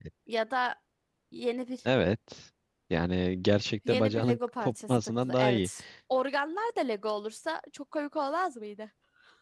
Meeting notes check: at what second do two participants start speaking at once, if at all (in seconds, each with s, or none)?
3.9 s